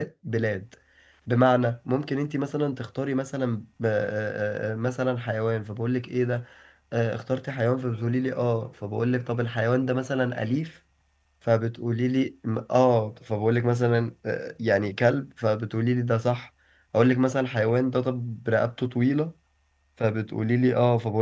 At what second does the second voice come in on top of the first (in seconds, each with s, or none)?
none